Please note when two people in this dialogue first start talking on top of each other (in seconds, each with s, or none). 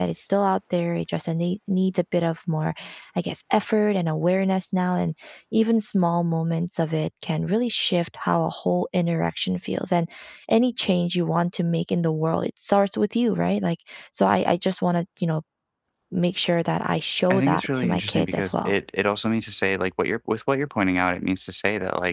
17.3 s